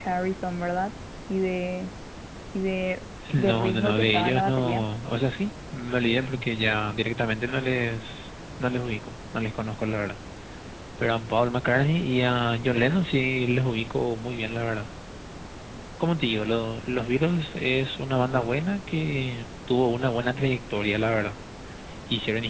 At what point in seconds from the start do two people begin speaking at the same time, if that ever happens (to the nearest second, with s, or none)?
3 s